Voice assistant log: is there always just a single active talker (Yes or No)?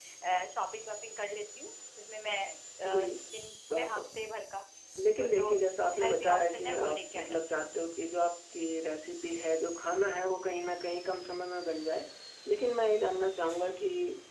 No